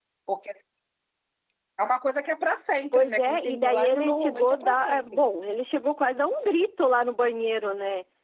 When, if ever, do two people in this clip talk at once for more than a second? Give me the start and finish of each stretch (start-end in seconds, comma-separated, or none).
2.9-5.2